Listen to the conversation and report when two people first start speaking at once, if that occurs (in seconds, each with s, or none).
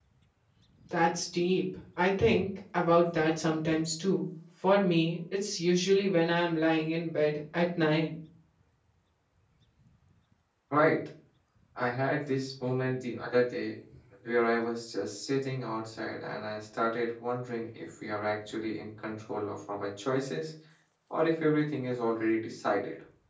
none